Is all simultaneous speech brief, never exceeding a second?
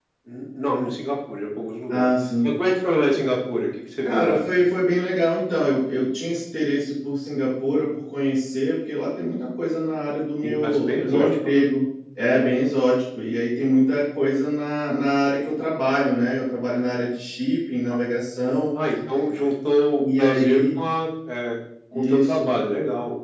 No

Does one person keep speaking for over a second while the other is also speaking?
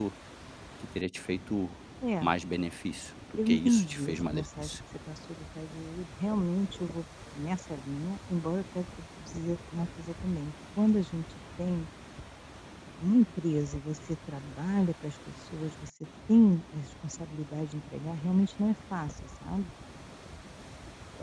Yes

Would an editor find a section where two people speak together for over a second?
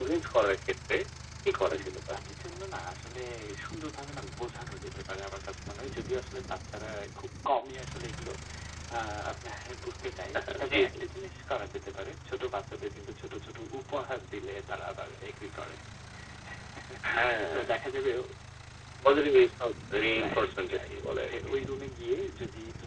Yes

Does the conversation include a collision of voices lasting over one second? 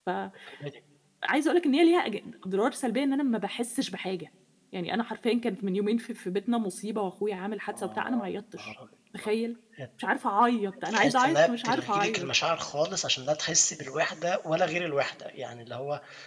Yes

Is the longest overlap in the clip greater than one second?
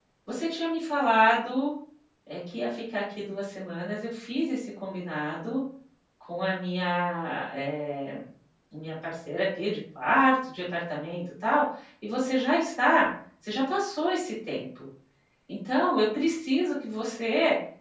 No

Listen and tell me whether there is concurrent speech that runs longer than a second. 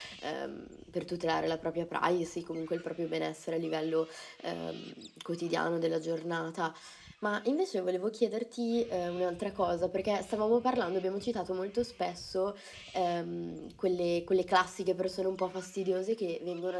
No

